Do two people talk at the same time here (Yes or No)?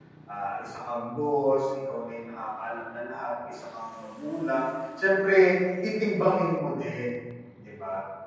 No